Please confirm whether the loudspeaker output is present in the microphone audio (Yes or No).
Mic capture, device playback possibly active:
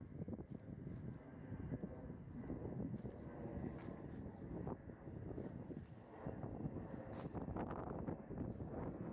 No